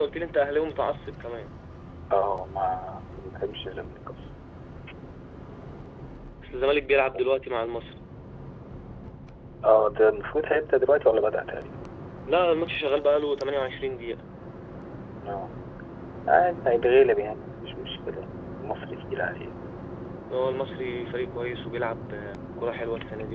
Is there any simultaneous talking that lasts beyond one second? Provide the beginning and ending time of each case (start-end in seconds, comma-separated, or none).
none